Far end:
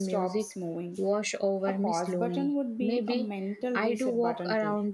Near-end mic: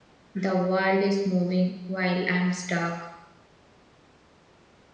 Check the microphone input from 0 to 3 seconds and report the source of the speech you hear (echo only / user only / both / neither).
user only